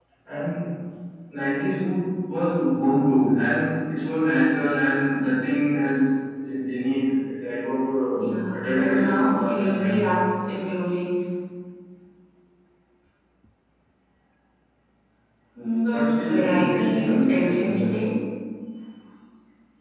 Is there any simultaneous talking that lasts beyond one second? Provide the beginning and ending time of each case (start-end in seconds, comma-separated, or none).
8.2-10.2, 15.9-17.7